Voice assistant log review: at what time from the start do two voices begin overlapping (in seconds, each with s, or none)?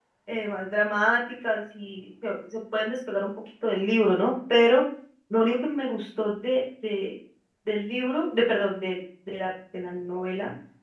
none